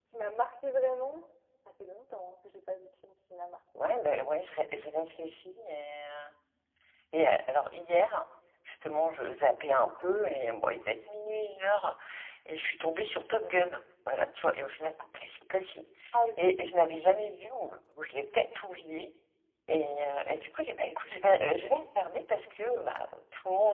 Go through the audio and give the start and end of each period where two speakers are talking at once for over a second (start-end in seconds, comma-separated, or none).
none